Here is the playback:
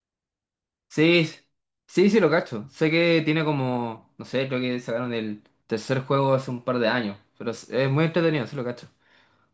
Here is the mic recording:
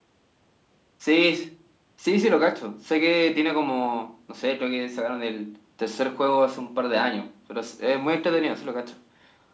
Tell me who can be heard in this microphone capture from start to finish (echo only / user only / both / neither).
echo only